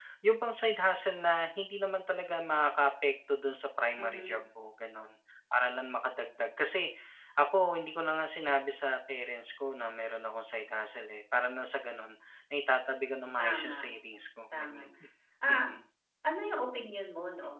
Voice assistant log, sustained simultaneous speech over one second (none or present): none